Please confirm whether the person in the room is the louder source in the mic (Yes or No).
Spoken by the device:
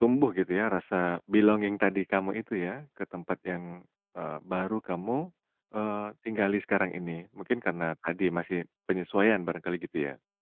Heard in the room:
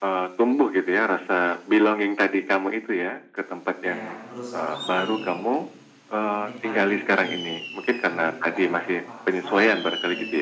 No